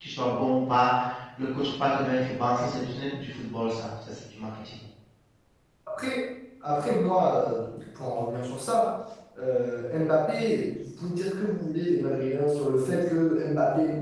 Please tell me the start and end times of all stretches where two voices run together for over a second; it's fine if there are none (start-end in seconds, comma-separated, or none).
none